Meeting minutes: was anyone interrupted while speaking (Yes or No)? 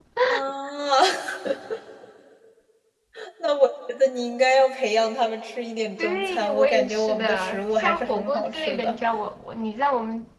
Yes